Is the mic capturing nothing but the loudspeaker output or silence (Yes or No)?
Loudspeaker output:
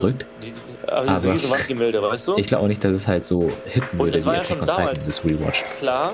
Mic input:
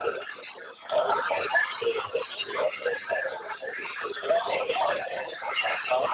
Yes